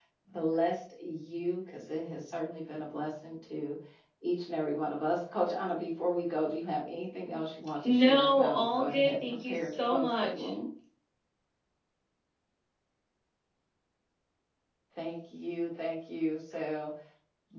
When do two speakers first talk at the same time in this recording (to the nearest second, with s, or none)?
8 s